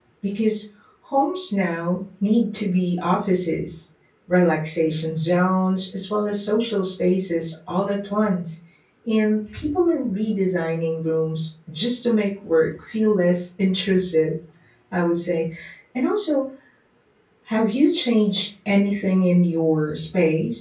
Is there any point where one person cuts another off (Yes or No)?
No